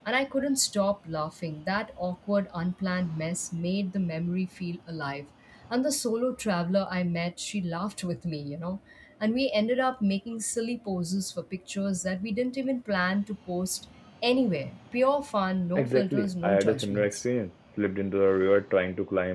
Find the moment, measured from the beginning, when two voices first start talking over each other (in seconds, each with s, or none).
15.8 s